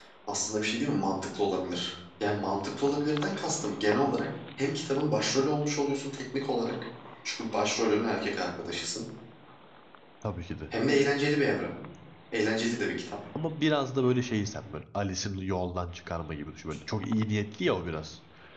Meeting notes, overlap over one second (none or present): none